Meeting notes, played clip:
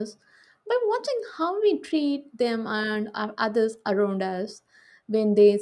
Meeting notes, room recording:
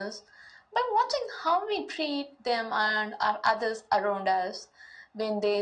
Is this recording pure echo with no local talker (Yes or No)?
Yes